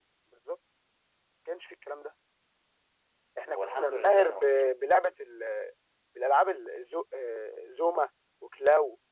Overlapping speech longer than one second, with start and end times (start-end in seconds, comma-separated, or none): 3.5-5.1